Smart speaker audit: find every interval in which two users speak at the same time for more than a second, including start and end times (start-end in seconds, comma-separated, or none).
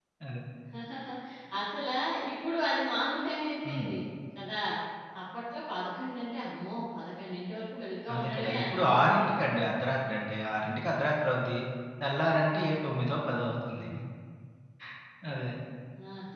8.1-9.4